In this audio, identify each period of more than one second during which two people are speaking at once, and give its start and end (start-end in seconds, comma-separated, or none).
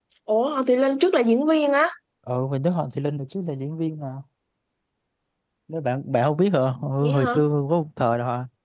none